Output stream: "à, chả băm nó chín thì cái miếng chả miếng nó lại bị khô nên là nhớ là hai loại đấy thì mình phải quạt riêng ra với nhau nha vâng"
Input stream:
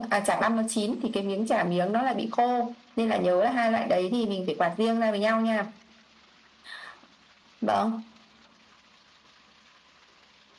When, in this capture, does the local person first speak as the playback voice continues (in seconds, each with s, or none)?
none